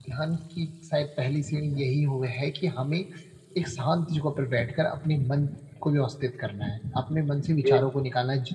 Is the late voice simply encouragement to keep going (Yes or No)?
Yes